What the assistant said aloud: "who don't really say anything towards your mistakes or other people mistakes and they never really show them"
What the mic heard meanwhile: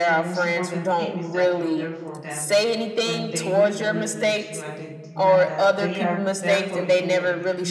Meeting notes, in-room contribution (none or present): present